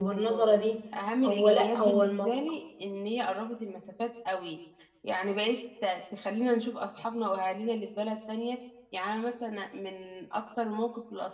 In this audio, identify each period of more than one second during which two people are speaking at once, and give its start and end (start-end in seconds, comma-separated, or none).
1.2-2.5